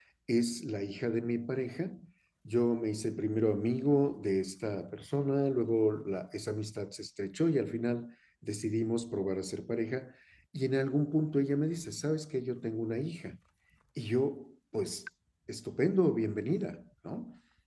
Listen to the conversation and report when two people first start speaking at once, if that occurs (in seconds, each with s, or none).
none